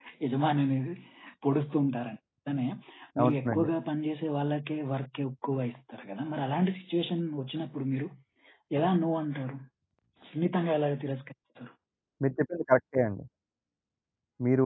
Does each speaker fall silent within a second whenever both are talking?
Yes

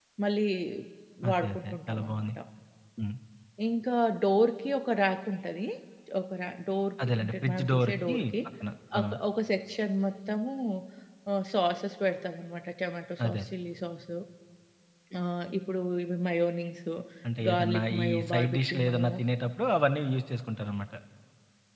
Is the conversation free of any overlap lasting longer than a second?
No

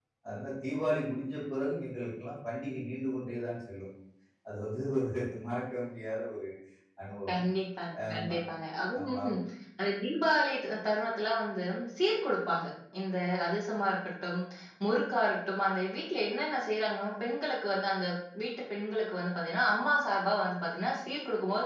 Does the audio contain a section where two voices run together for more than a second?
No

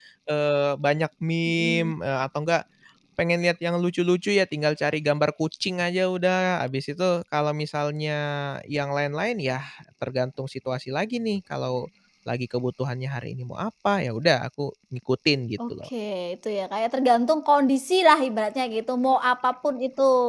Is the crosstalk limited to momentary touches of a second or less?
Yes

